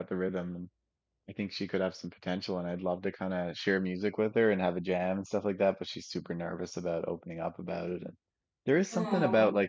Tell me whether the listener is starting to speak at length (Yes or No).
No